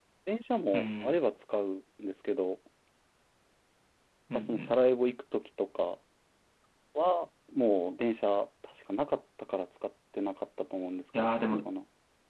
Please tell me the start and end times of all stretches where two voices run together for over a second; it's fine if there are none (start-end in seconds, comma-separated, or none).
none